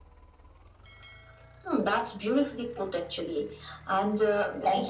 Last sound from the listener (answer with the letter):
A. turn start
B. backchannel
B